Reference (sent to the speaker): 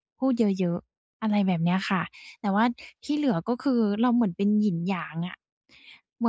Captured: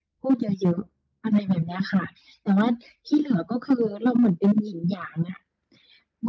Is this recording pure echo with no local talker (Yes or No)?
Yes